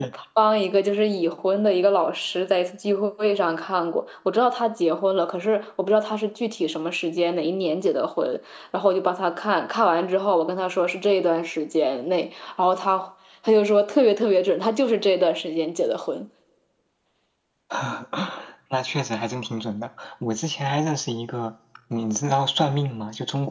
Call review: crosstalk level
none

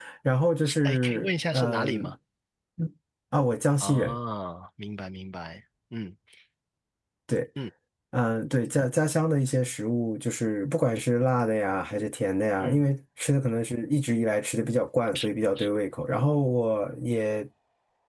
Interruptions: present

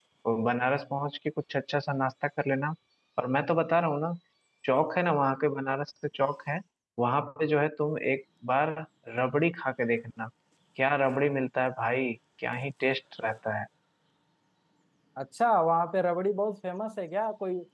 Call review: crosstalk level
none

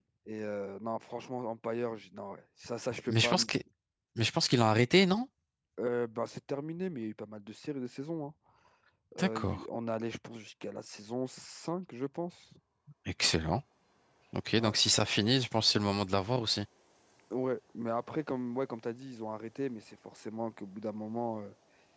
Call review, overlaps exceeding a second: none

